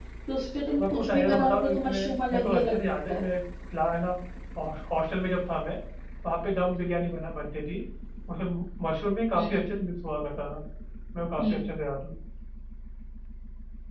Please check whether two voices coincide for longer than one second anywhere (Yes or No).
Yes